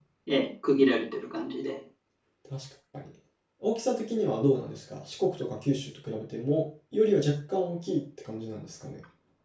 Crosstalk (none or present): none